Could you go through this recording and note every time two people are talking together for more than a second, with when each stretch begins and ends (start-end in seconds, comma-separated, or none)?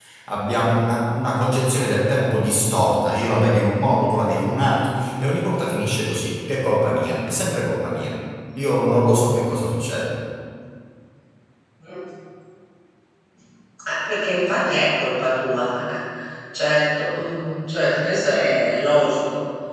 none